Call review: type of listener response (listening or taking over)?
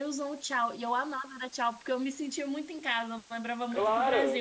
taking over